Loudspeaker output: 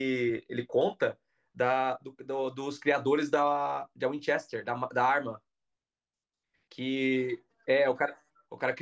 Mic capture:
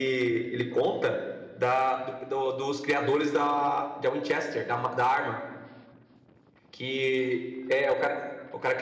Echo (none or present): present